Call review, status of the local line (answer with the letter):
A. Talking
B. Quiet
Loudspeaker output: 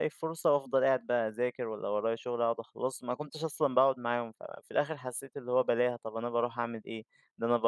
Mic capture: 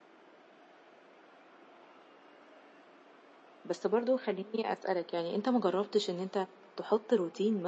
A